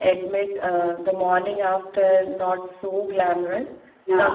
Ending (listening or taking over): listening